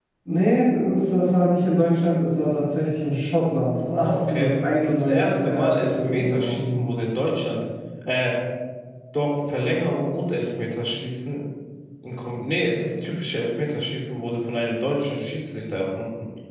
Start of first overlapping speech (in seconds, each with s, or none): 3.8 s